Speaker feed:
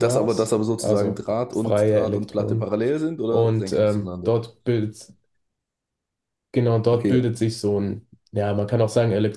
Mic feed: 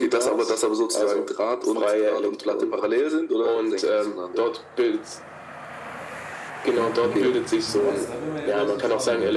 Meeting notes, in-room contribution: present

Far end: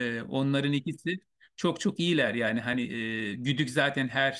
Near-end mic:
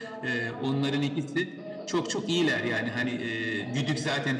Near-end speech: present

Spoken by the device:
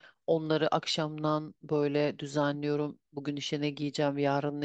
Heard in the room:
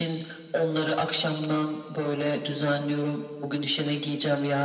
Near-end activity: none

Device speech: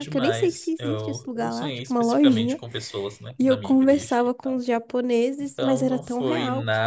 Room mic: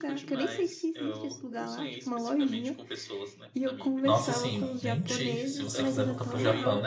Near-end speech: present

